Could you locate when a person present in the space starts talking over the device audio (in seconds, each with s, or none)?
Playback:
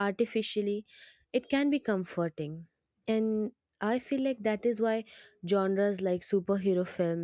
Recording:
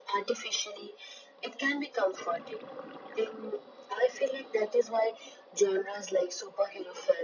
none